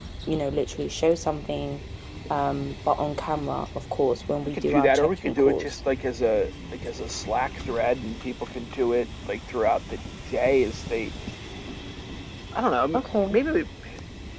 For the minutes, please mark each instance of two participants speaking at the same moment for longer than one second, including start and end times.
4.4-5.8

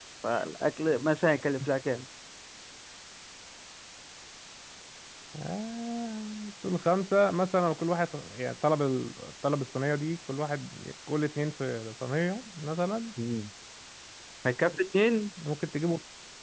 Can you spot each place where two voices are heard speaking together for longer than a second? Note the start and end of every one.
none

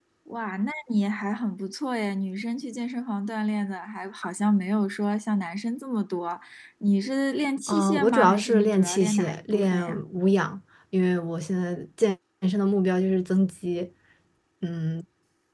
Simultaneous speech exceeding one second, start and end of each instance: 7.7-10.0

